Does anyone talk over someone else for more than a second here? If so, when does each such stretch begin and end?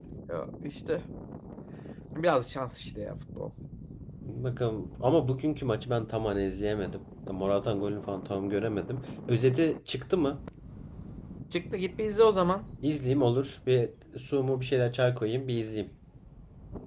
none

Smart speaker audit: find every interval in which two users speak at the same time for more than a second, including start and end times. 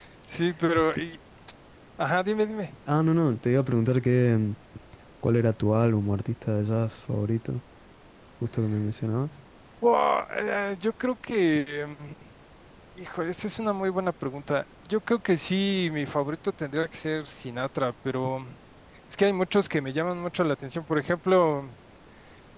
none

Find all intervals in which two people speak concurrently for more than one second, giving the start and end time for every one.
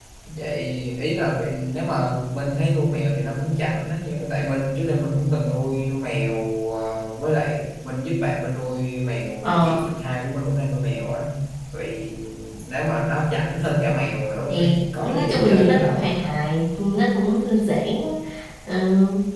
14.5-16.1

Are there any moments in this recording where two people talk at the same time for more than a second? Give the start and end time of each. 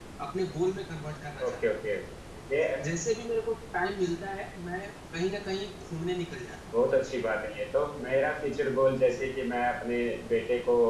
none

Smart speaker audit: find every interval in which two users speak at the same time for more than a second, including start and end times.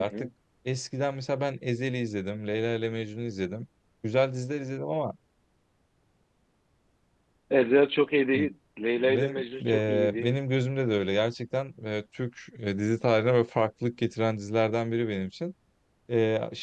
9.0-10.3

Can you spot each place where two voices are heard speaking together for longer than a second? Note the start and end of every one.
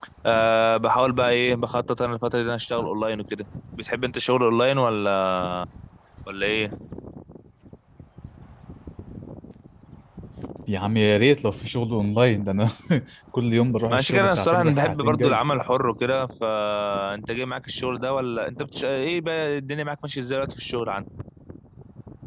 13.9-15.4

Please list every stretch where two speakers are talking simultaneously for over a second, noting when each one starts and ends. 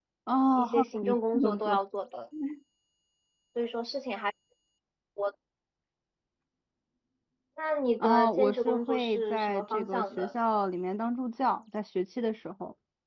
0.6-1.8, 8.0-10.3

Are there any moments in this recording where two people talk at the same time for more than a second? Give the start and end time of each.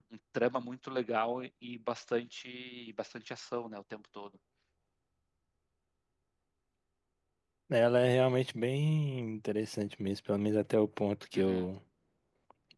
none

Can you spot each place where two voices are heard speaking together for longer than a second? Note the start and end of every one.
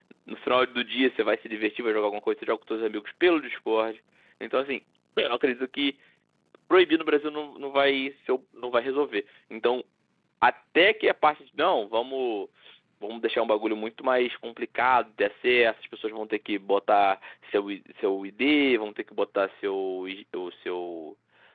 none

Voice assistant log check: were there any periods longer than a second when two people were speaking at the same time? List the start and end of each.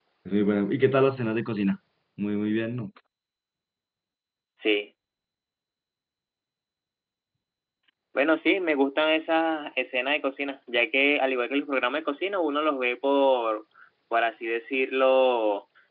none

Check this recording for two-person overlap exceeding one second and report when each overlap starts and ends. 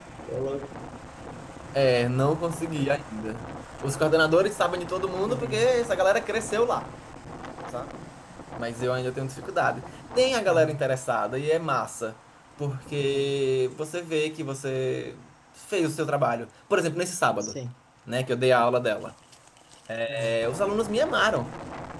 none

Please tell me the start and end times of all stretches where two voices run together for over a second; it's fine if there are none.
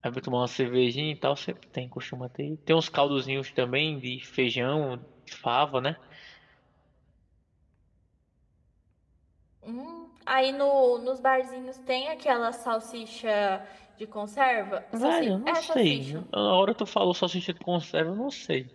14.9-16.2

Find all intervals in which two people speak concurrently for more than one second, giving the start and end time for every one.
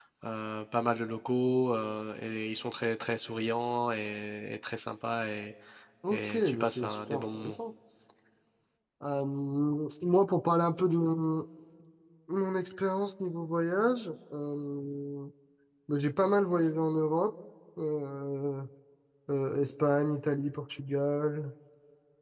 6.1-7.5

